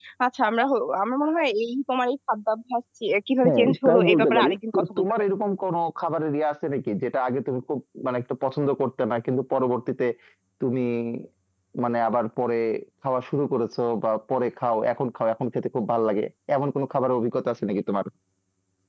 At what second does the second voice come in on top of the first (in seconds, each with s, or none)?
3.4 s